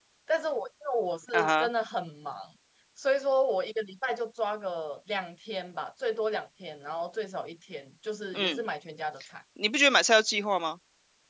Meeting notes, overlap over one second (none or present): none